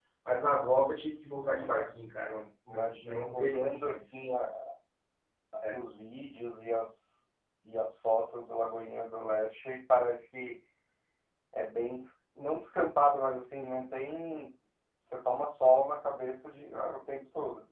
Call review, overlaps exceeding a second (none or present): present